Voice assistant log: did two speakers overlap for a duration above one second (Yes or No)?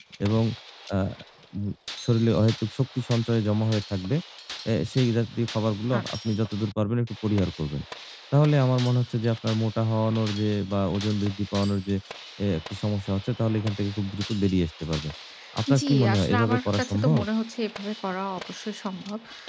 Yes